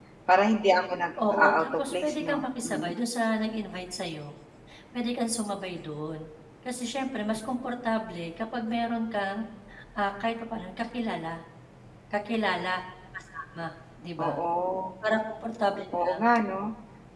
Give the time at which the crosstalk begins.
1.3 s

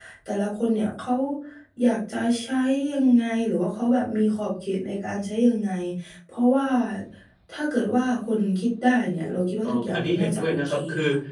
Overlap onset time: 9.2 s

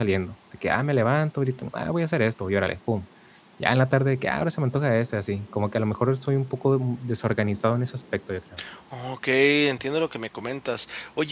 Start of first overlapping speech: none

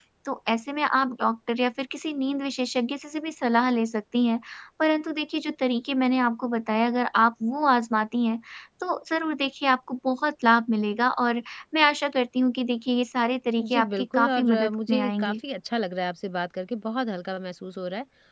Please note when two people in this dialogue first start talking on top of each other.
13.6 s

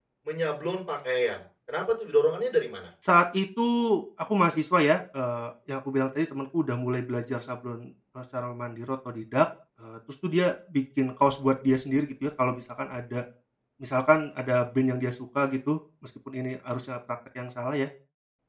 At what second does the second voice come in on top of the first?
none

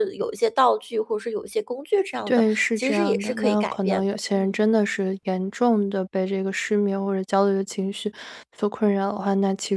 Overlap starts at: 2.3 s

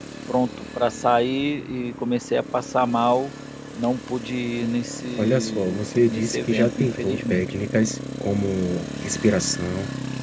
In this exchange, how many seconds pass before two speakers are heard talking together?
5.2 s

